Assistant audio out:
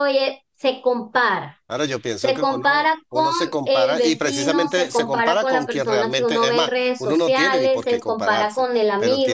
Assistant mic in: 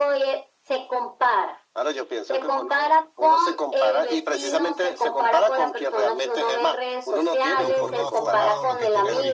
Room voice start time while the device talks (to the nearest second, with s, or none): 8 s